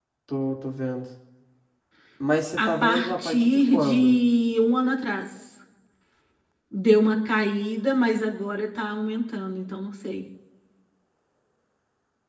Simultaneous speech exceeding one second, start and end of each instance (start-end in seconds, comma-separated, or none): 2.6-4.2